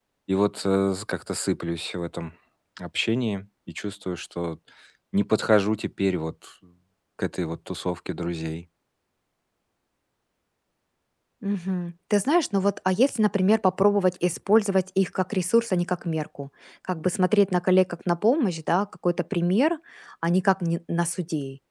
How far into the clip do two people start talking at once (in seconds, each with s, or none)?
none